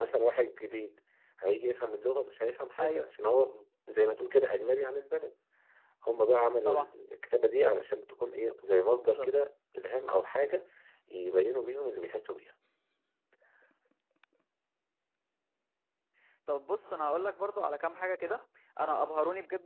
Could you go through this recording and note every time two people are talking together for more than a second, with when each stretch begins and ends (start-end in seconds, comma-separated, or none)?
none